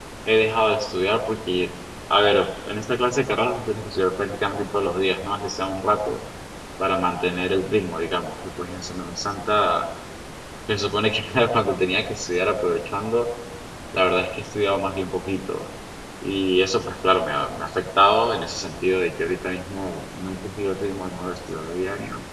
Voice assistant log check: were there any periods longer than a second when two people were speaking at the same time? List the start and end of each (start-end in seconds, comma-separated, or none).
none